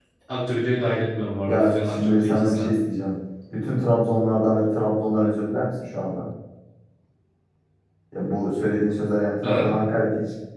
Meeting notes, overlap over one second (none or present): present